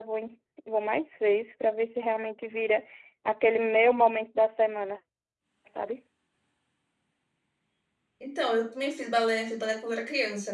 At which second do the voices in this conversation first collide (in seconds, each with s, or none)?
none